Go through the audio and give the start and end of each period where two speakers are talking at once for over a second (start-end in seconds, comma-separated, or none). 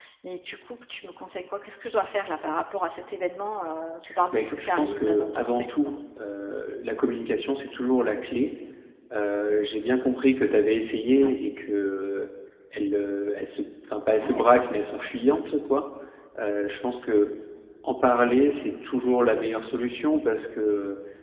4.3-5.9